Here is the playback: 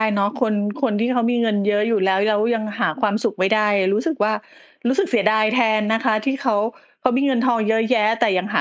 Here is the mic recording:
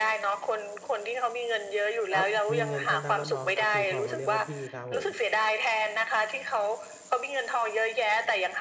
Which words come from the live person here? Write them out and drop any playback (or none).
อะครับ มีเงินเขานับว่าน้องครับ มีทองเขาเรียกว่าพี่ครับผม